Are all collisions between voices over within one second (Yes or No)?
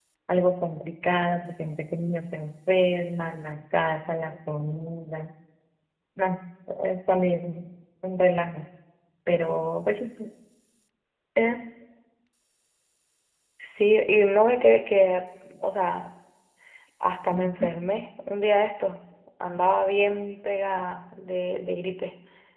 Yes